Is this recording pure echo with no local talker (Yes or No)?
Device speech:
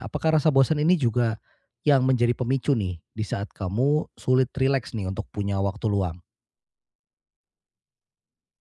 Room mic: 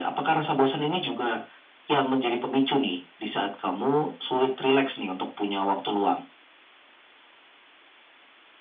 Yes